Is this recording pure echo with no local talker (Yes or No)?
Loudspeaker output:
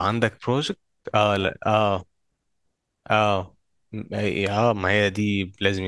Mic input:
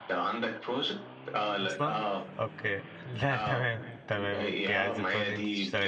No